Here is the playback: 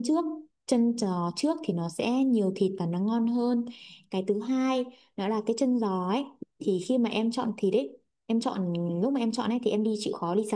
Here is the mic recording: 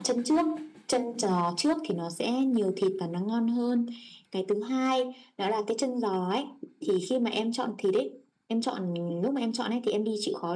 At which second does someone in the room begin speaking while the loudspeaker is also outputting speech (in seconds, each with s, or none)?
none